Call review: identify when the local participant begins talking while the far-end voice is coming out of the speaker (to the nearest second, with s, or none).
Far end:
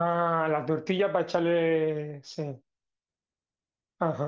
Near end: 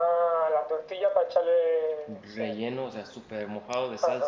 2 s